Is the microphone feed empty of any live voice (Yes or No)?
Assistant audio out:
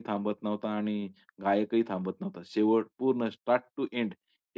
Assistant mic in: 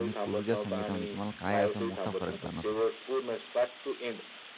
No